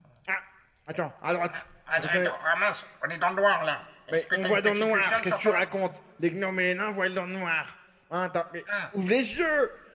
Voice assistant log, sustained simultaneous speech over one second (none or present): present